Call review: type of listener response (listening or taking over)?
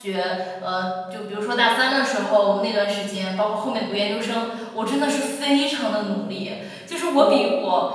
listening